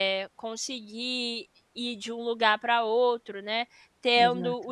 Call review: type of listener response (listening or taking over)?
listening